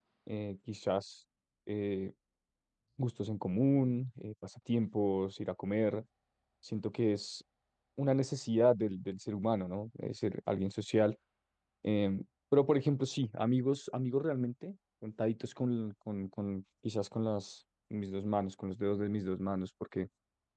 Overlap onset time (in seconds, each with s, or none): none